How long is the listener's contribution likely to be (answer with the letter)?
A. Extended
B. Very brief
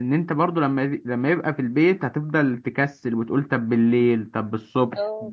A